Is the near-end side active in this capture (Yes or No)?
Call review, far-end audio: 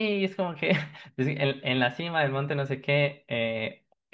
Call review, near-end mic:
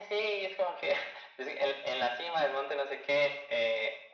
No